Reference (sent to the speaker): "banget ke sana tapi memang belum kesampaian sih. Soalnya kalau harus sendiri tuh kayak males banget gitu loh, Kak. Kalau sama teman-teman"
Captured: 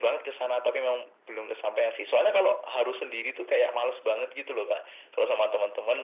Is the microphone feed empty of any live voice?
Yes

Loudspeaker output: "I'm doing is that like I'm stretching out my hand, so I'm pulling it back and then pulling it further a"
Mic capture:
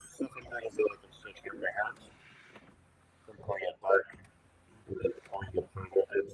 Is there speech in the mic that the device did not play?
No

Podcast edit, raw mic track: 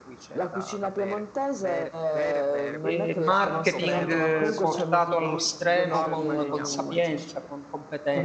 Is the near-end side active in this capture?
Yes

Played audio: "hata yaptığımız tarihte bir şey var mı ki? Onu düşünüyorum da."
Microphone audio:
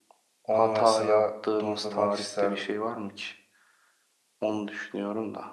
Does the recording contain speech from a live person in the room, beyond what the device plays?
Yes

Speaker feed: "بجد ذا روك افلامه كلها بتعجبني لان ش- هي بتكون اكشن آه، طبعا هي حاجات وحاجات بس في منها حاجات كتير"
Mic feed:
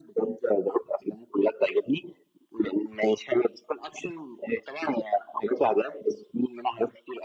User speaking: No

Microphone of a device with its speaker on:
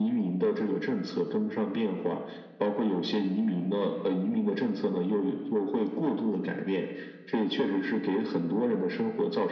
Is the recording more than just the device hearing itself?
No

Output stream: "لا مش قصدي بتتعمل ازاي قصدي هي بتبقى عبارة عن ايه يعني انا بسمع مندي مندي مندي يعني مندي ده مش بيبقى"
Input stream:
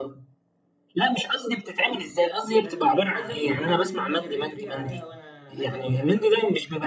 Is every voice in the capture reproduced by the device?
No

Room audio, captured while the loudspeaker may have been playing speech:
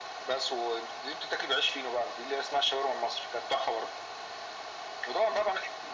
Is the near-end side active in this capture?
No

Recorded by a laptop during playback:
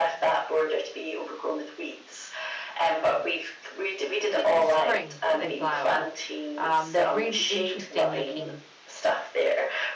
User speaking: Yes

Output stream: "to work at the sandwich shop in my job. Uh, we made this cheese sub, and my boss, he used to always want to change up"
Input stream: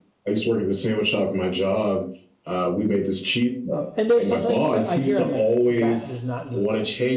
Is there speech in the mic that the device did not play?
Yes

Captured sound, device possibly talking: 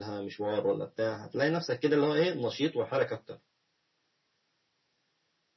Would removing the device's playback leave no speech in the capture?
Yes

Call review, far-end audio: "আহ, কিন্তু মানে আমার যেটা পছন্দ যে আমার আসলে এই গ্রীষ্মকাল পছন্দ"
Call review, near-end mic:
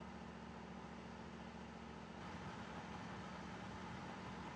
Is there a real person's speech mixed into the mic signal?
No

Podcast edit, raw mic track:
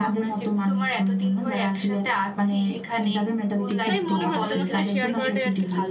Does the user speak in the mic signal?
Yes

